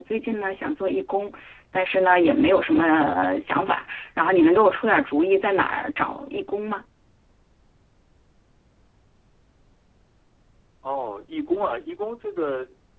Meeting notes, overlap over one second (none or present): none